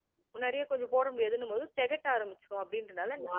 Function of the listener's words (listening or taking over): taking over